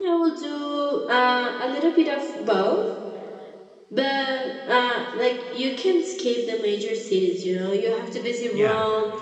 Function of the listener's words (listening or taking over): listening